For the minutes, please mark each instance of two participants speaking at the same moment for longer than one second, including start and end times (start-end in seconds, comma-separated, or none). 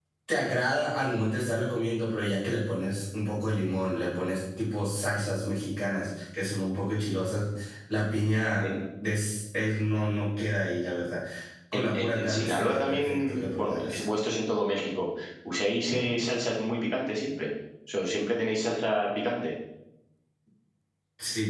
11.7-14.0